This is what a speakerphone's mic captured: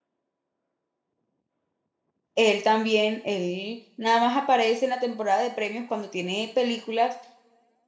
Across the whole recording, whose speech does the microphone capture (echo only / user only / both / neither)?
user only